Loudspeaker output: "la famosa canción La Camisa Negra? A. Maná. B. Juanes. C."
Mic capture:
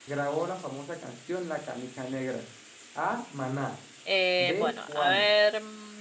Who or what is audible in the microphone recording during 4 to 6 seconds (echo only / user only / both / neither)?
both